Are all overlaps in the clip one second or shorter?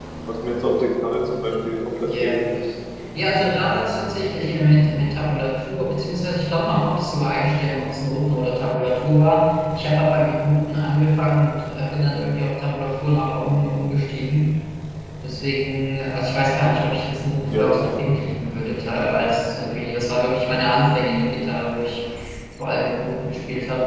Yes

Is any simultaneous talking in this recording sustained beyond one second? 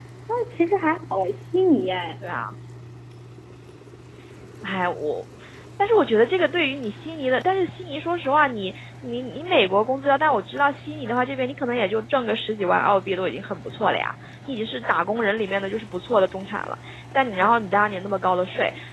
No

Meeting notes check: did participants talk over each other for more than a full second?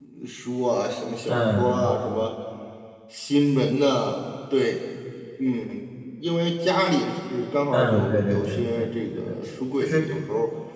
Yes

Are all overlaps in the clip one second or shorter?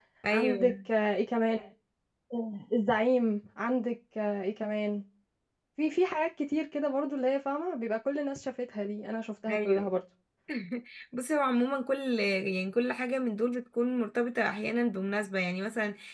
Yes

